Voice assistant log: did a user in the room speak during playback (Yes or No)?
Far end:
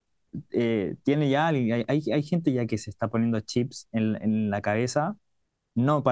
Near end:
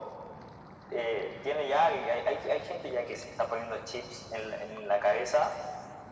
No